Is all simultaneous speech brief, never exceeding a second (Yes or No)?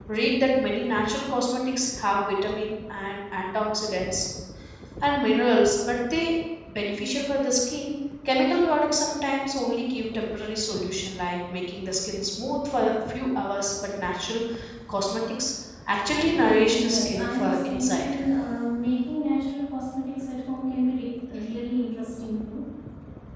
No